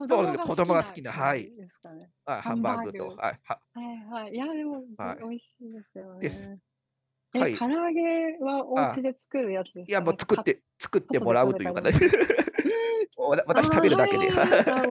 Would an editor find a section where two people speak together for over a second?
Yes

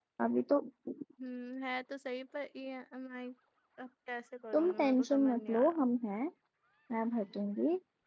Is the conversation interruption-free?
No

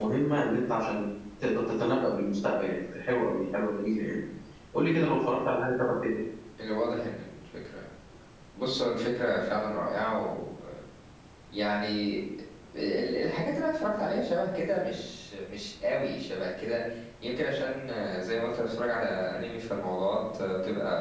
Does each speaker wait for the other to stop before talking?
Yes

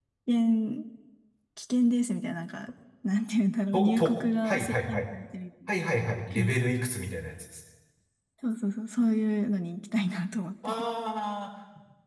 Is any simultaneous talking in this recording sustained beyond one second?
Yes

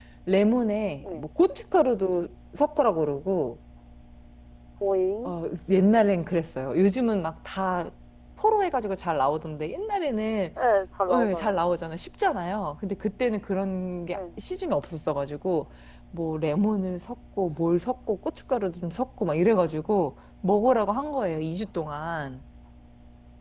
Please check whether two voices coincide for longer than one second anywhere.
No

